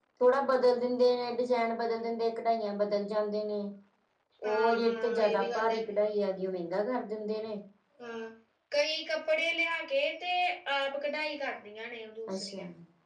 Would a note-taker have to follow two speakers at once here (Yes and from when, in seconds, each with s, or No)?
Yes, from 4.4 s